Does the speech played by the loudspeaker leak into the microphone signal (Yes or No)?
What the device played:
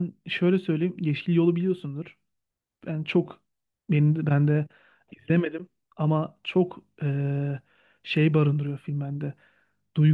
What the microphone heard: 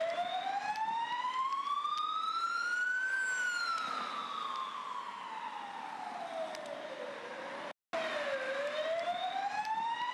No